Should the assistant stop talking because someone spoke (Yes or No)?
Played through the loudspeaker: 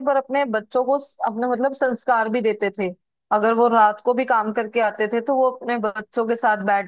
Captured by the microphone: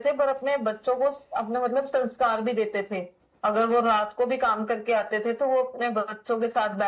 No